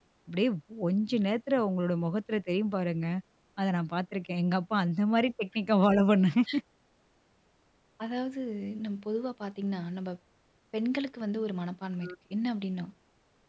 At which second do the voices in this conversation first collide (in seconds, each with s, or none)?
none